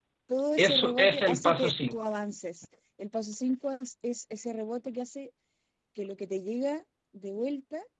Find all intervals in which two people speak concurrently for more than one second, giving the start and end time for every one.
0.6-2.0

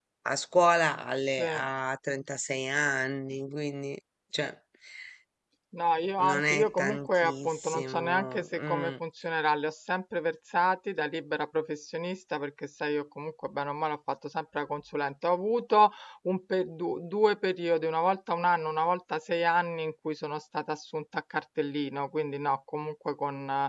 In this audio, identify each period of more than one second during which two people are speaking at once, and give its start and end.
6.2-8.9

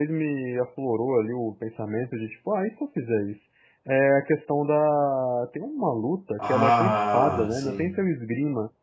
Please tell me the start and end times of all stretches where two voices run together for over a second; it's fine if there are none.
6.4-7.8

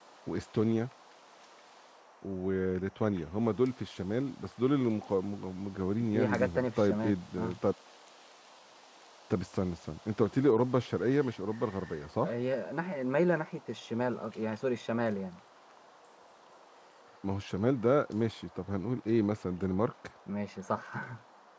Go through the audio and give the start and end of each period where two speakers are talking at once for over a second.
6.1-7.5

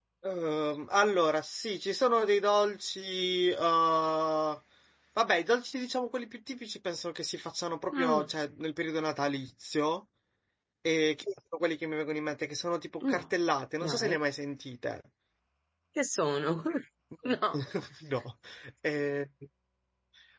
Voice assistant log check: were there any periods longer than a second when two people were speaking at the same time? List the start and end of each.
none

